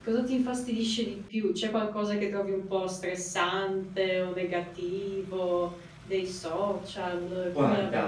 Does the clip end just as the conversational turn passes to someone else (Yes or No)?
Yes